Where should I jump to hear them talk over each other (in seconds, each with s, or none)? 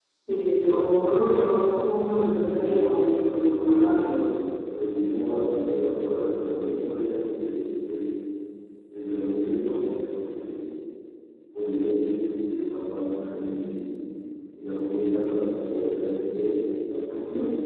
2.4 s